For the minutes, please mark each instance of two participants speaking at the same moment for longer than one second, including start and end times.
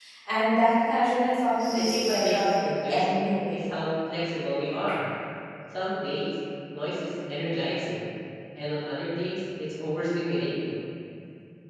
1.7-3.6

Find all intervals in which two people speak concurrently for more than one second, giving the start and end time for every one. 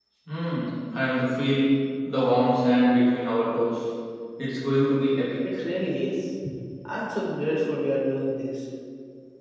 none

